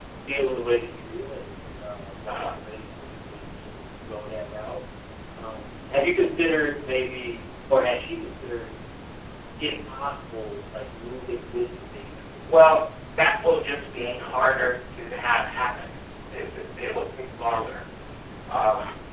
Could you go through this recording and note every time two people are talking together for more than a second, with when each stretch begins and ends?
13.2-14.5

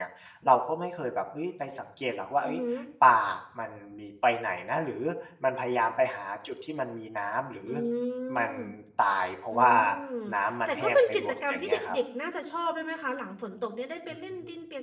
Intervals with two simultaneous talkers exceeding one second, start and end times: 10.7-12.0

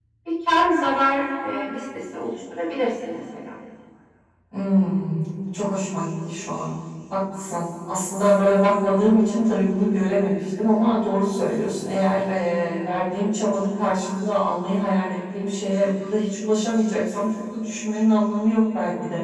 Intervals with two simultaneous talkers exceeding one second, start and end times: none

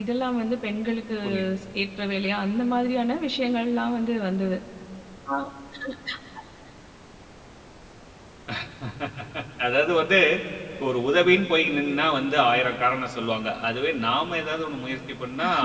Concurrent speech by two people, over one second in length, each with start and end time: none

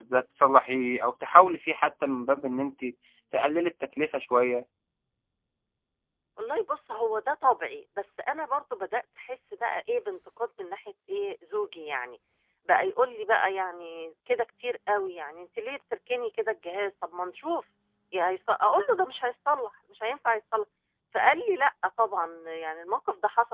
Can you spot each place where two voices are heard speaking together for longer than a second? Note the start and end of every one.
none

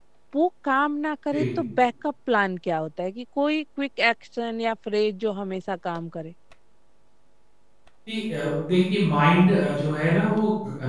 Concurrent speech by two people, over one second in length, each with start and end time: none

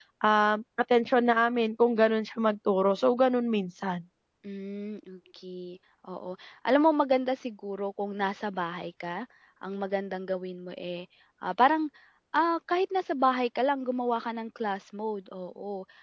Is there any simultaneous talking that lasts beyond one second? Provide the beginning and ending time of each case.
none

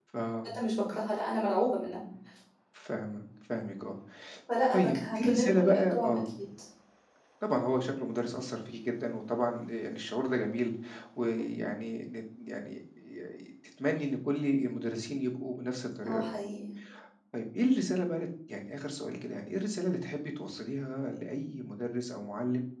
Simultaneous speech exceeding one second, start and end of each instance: 4.7-6.3

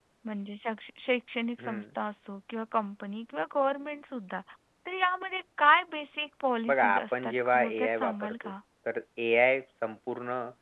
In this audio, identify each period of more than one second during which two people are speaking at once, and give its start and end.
6.7-8.6

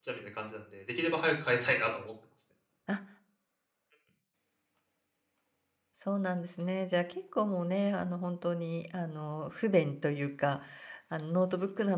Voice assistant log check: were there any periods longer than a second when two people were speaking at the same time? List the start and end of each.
none

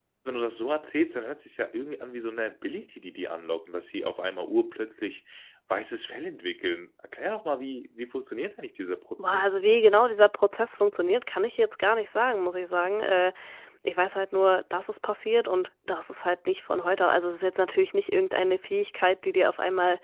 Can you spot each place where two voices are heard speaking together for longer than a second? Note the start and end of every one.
none

